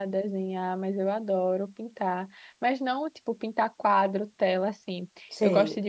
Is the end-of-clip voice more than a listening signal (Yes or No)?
No